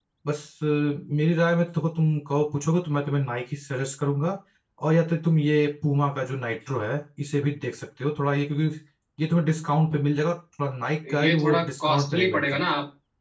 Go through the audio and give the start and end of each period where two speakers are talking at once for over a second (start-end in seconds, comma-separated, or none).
11.1-12.6